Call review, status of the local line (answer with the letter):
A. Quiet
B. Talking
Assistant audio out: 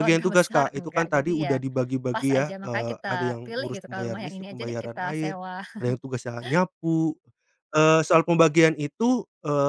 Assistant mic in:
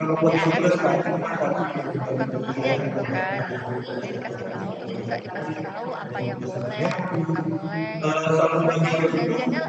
B